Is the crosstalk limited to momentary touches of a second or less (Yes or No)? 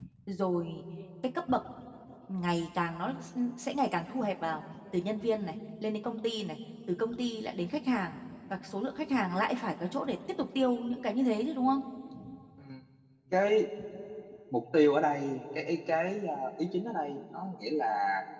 Yes